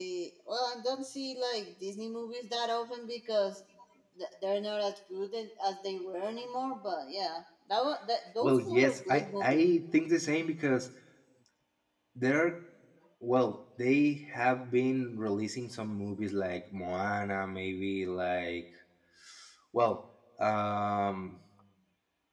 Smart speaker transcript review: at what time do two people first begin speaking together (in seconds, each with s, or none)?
8.4 s